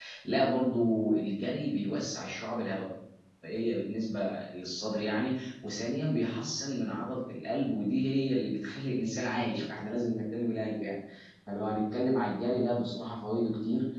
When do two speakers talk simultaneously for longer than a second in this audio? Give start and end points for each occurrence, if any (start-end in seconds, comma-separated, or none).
none